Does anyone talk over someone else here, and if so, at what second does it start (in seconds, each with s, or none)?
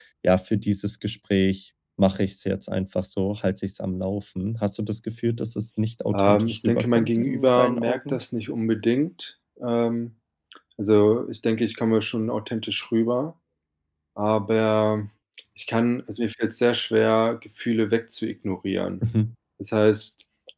6.1 s